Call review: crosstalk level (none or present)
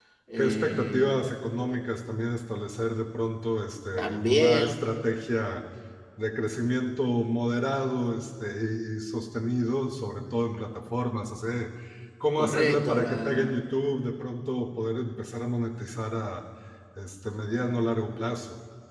present